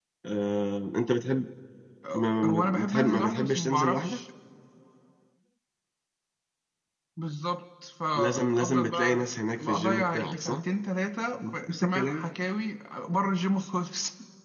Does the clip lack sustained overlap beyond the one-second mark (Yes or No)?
No